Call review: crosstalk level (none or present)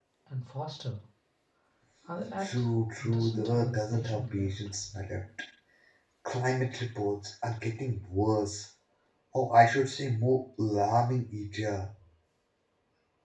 present